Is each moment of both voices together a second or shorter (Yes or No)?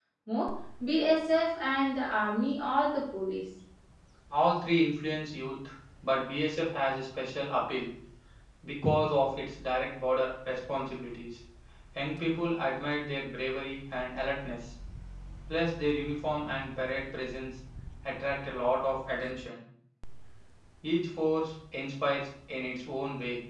Yes